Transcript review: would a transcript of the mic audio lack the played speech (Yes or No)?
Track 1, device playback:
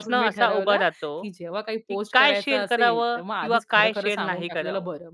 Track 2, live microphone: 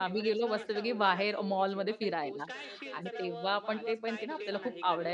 No